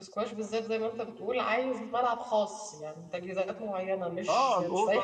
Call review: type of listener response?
taking over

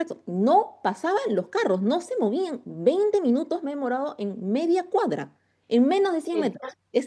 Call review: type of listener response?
listening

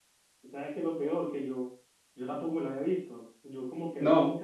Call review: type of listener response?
listening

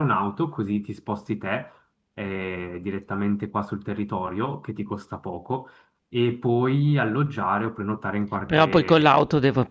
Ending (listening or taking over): taking over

